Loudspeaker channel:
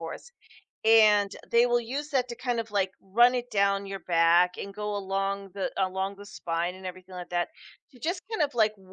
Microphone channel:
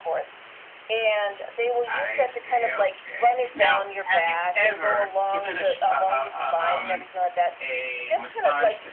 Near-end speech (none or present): present